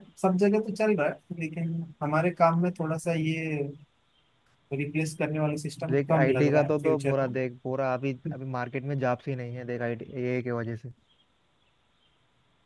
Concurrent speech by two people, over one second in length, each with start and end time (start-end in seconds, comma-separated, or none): 5.9-7.4